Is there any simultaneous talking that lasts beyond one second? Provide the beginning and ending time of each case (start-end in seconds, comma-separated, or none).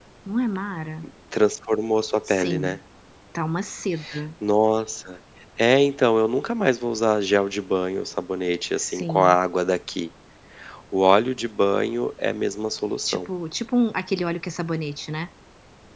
none